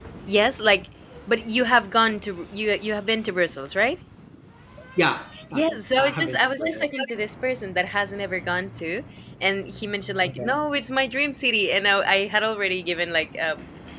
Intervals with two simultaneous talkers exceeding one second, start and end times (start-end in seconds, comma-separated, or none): 5.5-6.9